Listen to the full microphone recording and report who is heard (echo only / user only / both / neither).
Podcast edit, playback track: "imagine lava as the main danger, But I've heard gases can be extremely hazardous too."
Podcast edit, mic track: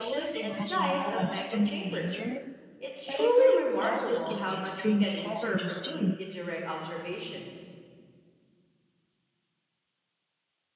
both